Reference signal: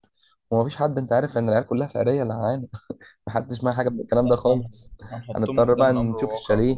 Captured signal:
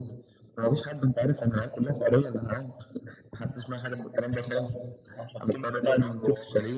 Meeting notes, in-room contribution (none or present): none